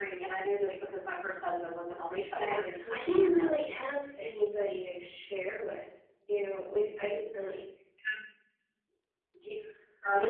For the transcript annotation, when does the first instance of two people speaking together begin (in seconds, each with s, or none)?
2.4 s